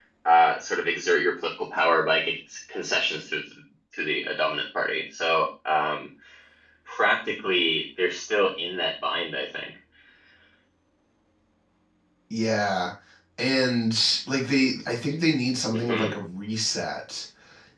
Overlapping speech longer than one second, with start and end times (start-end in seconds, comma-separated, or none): none